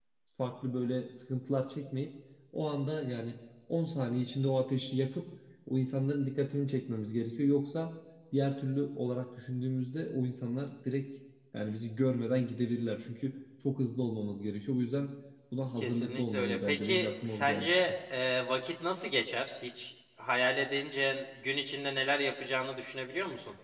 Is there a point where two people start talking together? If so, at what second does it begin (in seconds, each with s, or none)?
15.8 s